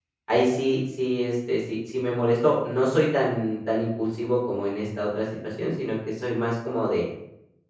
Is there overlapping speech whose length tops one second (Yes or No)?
No